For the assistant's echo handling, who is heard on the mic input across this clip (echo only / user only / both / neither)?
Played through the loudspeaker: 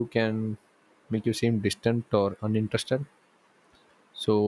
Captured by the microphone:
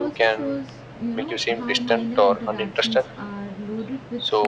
both